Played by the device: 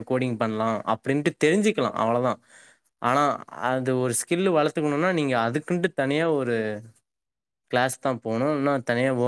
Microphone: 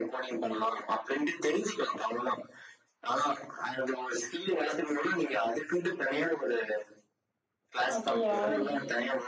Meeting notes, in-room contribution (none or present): present